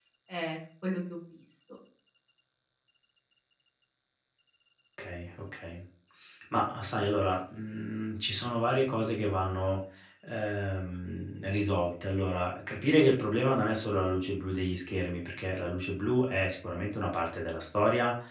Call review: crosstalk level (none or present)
none